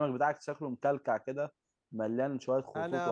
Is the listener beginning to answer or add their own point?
Yes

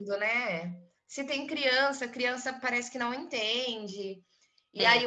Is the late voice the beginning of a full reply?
No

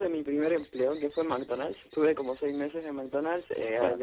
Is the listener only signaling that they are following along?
Yes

